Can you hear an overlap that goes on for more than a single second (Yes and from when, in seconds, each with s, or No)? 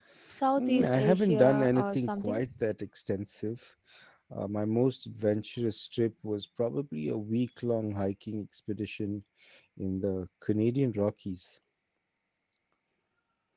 Yes, from 0.6 s